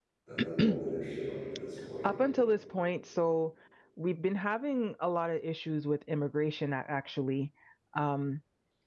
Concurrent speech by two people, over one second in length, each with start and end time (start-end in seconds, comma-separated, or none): none